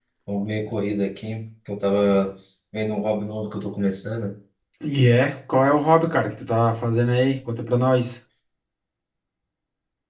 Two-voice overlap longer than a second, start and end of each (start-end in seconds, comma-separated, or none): none